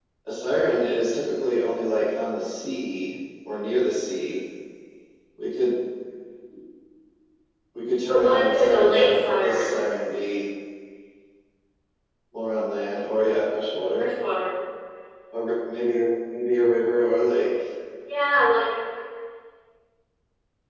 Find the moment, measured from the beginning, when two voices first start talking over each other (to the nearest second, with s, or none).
8 s